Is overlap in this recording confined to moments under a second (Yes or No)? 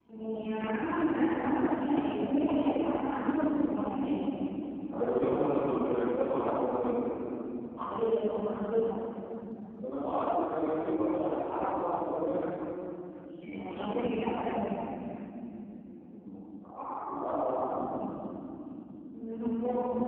Yes